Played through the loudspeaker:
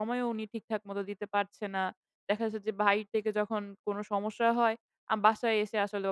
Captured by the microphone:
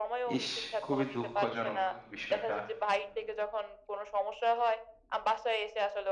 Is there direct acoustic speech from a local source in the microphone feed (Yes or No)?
Yes